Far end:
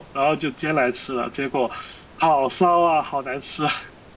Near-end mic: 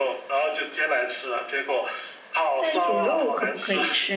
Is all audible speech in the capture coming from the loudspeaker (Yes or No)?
No